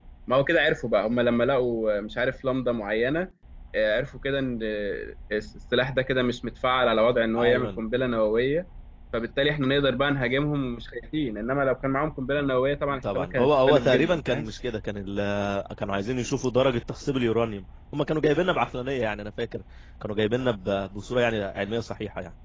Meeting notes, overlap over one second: present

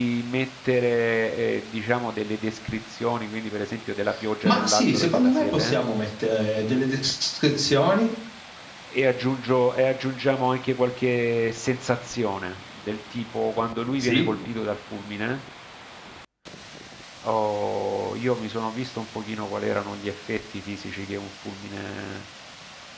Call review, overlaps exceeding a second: present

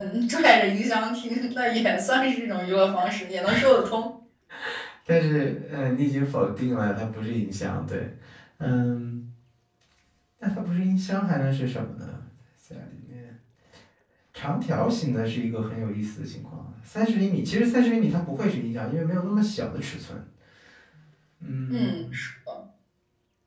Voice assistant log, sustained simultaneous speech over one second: none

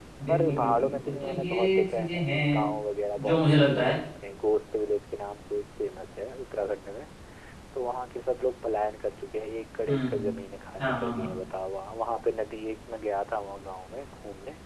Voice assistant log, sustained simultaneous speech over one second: present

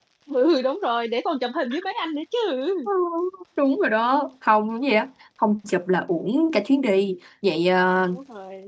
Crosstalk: none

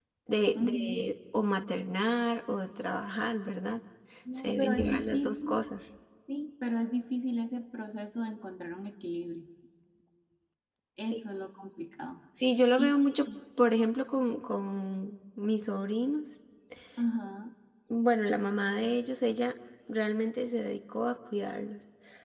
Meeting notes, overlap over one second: present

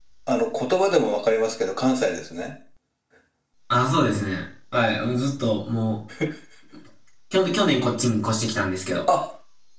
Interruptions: none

